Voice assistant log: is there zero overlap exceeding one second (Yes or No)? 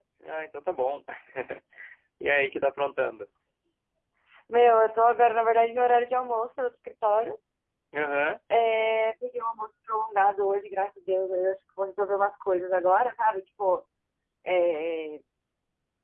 Yes